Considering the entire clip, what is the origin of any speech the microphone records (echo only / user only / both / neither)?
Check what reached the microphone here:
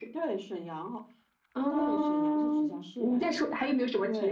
echo only